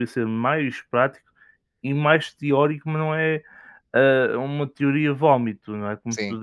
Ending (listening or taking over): listening